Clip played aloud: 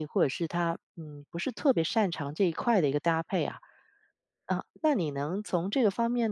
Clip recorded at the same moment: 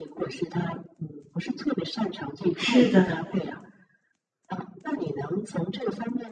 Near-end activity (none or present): present